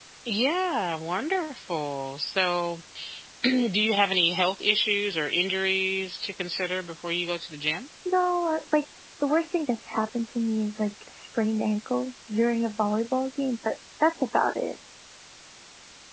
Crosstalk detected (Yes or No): No